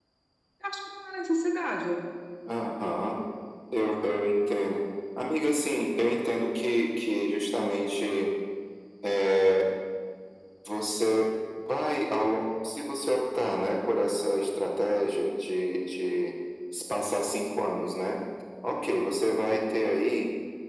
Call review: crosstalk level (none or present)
none